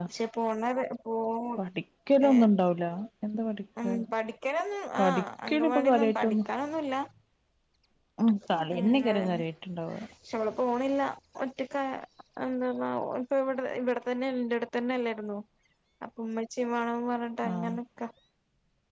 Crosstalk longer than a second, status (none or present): present